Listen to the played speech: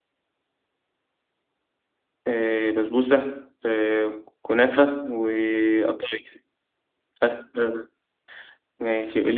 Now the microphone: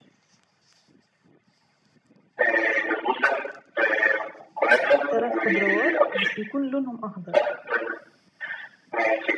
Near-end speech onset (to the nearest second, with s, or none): 5 s